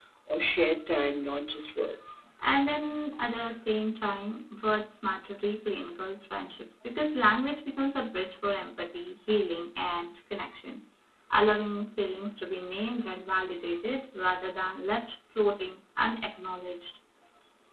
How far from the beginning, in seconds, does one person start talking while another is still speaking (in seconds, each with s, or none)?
none